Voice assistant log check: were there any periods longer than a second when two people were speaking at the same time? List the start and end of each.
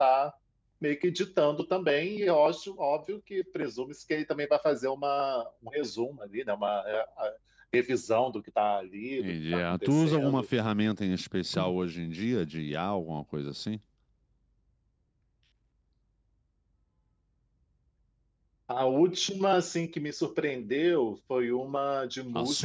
9.2-10.4

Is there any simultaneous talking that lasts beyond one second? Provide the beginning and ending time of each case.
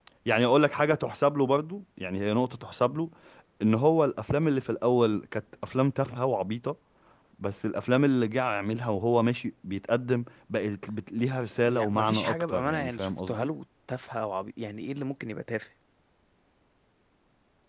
11.6-13.5

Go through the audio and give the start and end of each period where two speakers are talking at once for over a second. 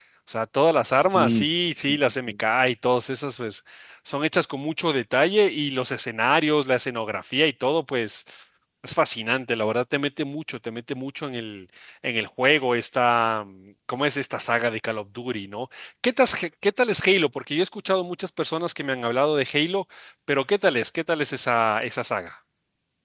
0.9-2.2

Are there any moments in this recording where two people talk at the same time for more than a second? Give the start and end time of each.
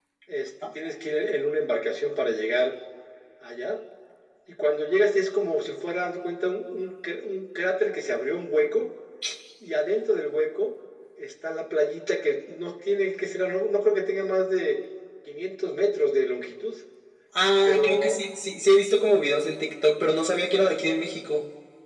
none

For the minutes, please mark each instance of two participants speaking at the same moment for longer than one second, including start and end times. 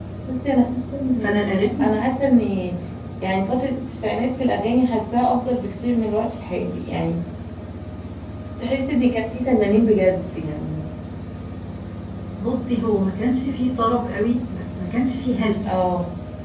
none

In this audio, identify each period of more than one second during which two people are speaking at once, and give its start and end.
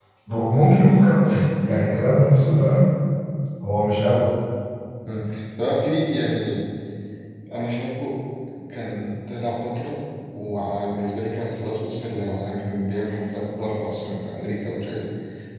none

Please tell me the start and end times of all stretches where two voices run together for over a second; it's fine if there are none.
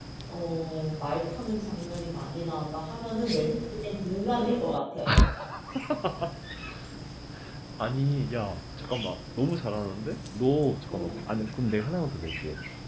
none

